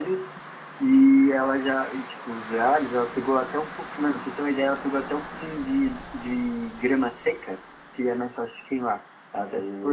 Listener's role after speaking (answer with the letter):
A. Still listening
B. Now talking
B